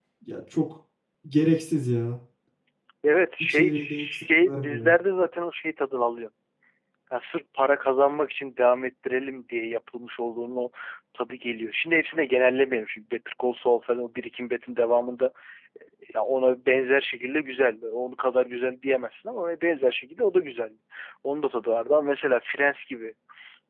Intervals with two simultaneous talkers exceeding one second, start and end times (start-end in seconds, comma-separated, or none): 3.4-4.9